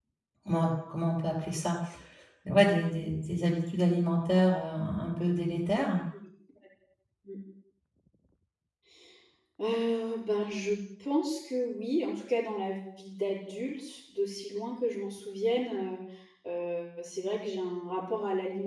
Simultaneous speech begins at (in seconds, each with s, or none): none